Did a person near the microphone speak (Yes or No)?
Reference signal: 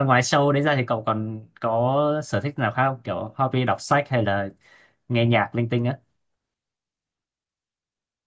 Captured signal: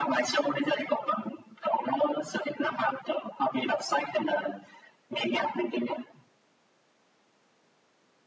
No